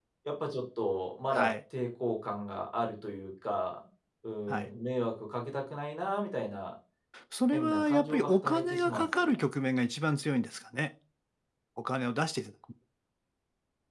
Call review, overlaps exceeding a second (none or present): present